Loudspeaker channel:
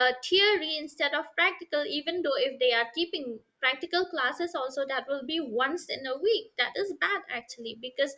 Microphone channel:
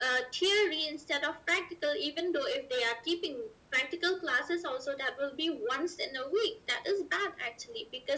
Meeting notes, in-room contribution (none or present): none